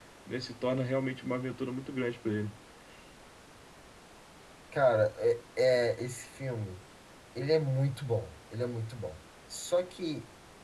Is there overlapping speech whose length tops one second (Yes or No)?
No